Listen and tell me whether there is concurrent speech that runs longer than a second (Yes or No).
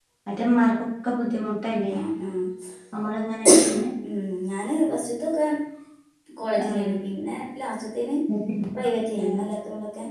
No